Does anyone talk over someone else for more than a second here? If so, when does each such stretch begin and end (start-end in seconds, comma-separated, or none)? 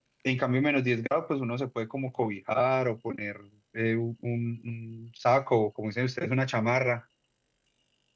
none